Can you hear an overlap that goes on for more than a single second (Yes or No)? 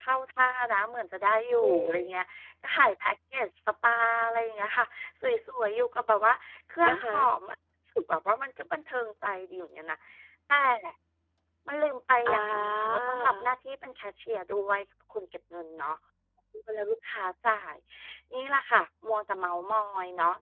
Yes